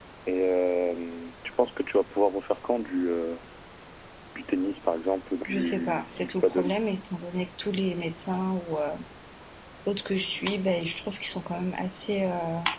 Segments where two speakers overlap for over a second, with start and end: 5.5-6.7

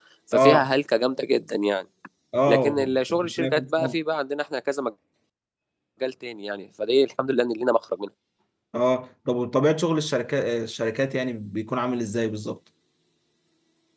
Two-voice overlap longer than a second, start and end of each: 2.5-4.0

